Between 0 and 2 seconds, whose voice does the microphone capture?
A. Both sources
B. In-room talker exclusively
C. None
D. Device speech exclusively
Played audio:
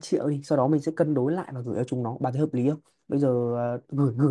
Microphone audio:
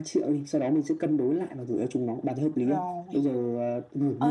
D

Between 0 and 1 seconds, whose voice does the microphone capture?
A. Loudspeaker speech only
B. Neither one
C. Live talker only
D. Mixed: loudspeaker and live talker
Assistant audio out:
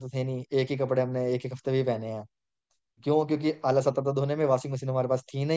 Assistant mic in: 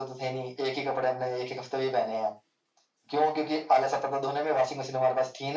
A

